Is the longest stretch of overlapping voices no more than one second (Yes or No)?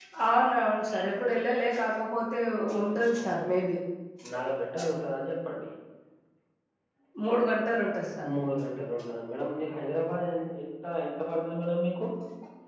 Yes